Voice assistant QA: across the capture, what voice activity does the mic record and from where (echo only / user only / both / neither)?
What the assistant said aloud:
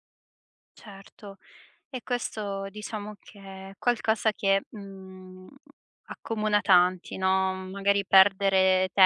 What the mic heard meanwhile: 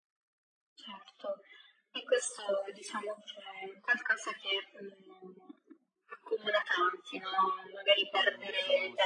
both